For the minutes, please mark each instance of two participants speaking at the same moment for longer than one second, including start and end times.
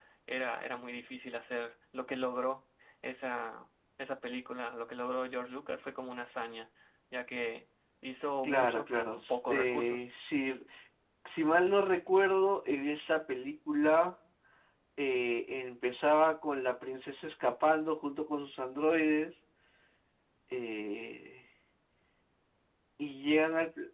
8.4-10.1

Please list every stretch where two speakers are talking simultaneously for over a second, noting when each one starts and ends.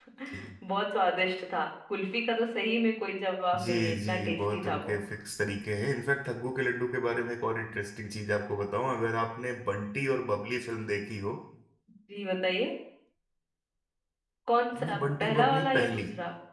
3.5-5.0, 14.8-16.0

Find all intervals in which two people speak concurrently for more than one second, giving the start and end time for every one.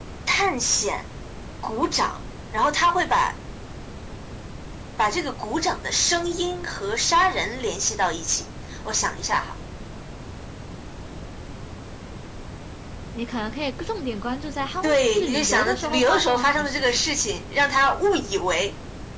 14.8-17.0

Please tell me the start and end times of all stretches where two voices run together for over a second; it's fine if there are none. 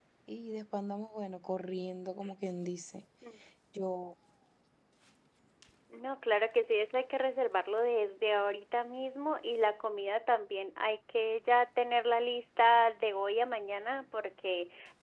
none

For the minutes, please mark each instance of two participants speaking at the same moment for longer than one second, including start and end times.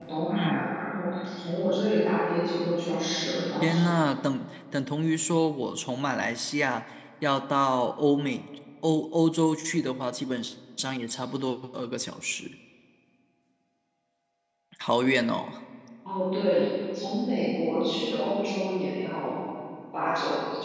none

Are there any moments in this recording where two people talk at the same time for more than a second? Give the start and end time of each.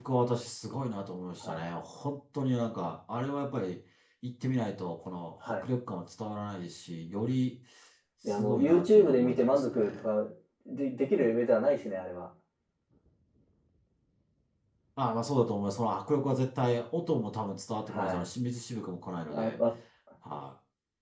8.4-10.0

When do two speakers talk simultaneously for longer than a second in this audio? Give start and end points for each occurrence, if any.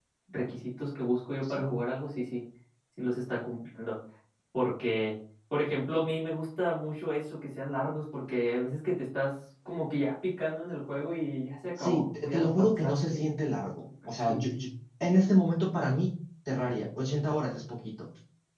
11.8-13.3

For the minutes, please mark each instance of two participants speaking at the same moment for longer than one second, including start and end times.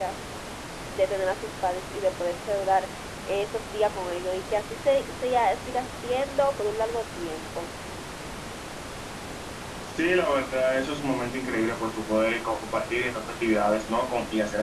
none

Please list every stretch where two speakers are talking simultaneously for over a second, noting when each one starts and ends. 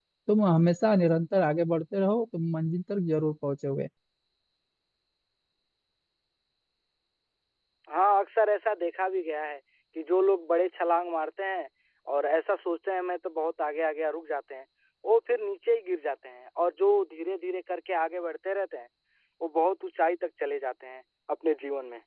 none

